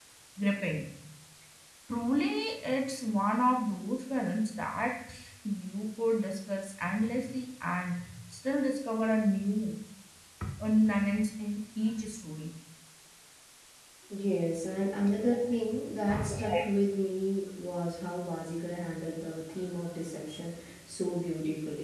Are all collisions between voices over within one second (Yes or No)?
Yes